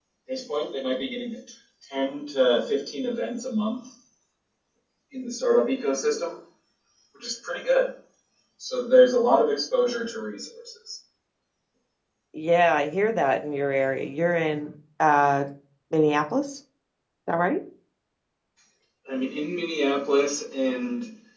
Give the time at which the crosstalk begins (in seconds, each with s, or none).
none